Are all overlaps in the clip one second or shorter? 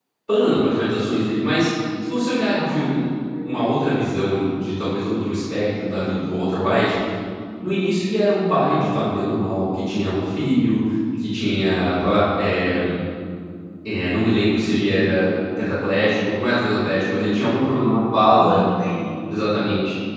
Yes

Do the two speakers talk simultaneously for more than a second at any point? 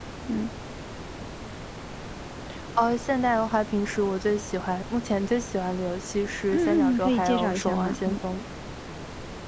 Yes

